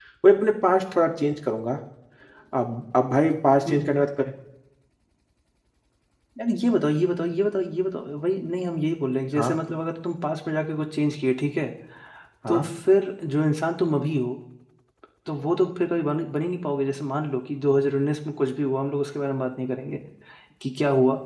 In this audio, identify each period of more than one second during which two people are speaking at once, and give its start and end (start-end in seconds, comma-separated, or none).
none